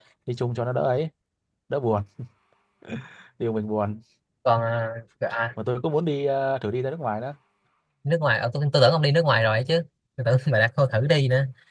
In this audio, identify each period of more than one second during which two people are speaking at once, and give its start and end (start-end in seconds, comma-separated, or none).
none